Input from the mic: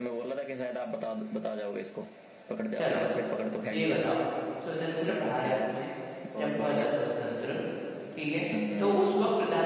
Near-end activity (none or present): present